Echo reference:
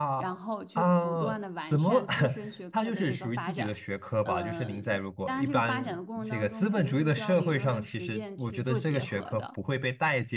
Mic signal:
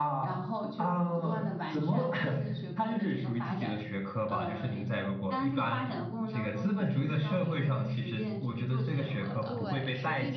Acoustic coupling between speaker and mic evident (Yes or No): Yes